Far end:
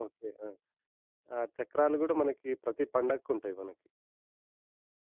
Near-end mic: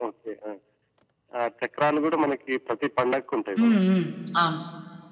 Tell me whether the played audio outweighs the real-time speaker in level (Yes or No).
No